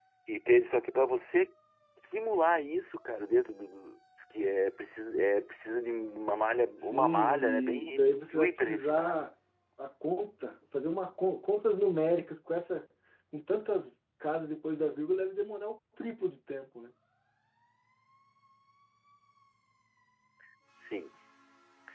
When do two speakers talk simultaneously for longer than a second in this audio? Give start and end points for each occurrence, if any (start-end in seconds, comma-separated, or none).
6.8-9.1